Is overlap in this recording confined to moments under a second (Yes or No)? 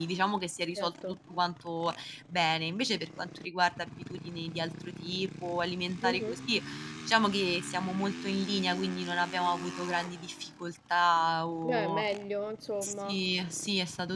Yes